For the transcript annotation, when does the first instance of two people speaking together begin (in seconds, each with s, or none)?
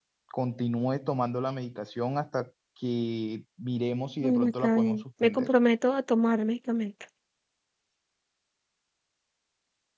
4.2 s